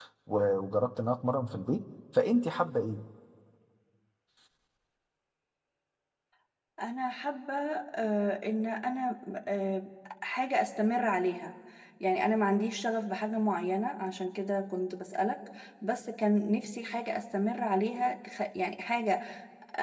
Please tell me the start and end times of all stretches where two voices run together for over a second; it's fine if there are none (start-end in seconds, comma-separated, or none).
none